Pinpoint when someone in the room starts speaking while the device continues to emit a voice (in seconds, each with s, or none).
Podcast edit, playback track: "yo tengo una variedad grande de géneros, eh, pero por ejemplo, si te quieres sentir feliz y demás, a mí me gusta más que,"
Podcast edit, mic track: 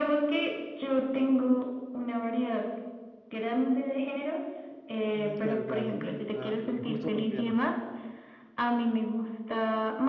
5.1 s